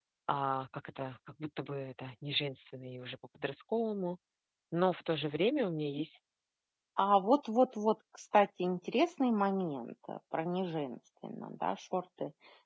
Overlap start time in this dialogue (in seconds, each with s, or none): none